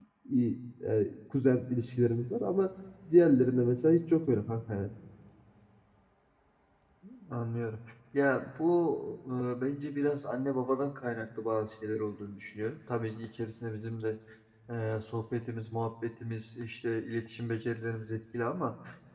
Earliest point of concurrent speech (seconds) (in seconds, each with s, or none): none